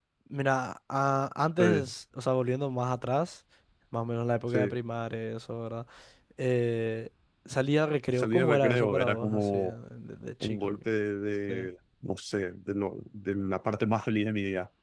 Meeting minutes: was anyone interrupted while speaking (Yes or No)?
Yes